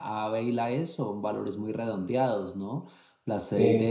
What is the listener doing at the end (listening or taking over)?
listening